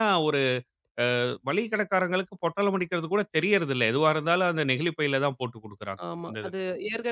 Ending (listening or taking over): taking over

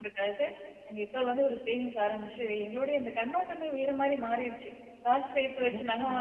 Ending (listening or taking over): listening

